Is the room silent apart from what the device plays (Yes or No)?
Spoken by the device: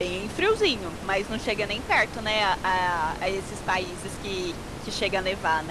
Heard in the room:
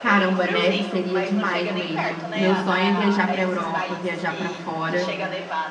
No